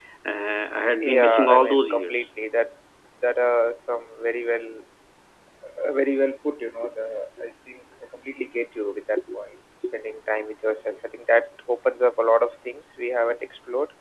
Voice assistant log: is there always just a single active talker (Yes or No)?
No